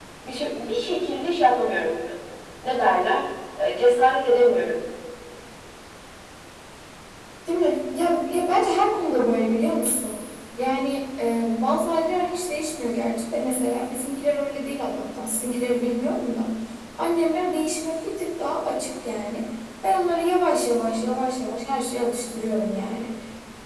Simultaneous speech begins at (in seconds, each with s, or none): none